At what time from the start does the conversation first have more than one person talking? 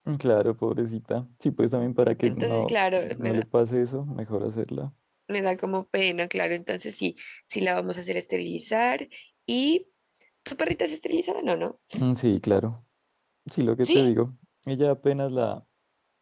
2.2 s

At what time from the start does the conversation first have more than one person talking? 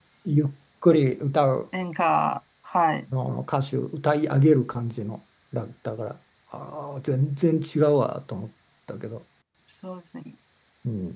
none

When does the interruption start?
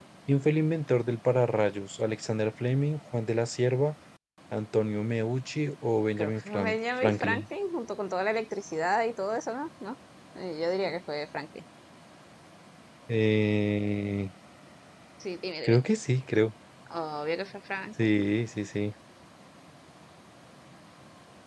6.2 s

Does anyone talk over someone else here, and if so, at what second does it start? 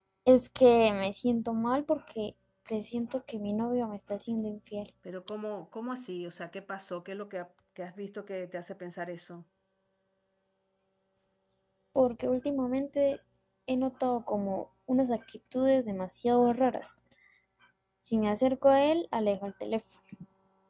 none

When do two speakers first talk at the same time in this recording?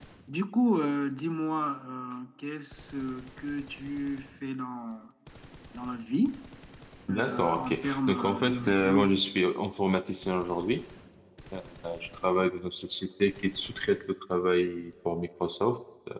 7.1 s

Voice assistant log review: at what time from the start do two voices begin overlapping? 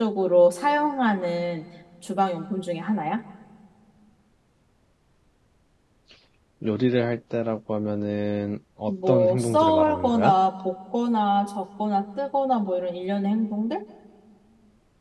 8.9 s

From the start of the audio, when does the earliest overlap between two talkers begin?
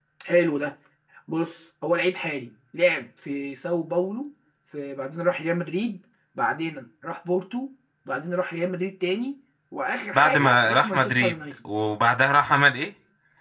10.1 s

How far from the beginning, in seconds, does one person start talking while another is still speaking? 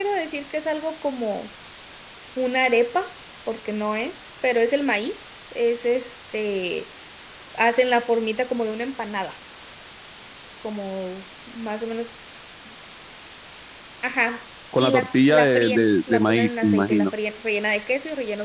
14.8 s

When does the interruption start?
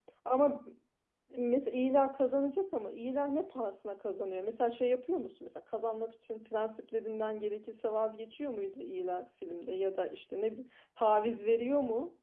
none

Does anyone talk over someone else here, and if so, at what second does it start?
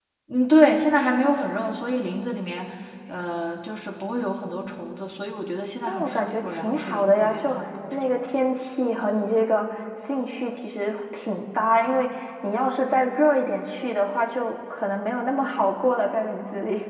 5.9 s

